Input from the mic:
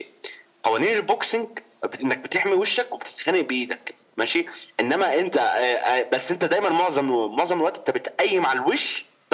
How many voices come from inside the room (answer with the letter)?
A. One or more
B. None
B